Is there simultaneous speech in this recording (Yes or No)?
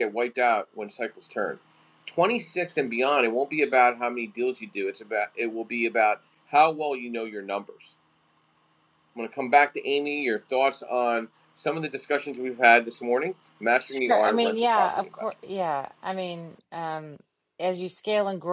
Yes